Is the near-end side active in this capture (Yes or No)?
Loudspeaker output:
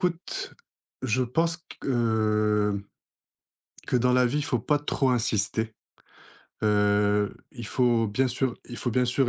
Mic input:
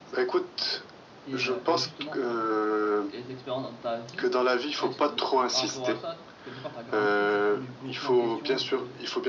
Yes